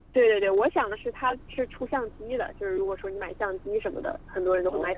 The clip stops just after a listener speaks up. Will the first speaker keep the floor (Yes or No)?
Yes